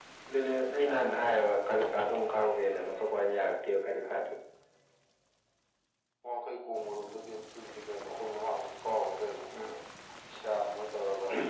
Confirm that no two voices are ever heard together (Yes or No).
Yes